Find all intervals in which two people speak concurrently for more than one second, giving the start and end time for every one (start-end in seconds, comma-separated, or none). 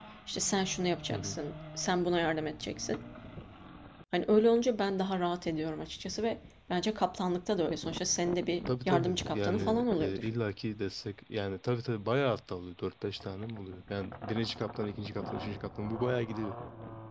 8.7-10.3